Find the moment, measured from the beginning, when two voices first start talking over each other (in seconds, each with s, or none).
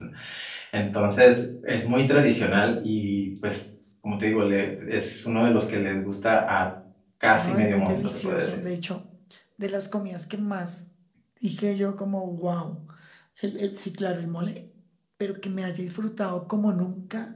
7.3 s